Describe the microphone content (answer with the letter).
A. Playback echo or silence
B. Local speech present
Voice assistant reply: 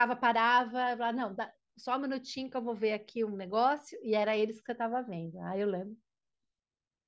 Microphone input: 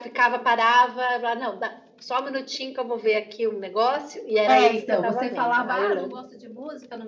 B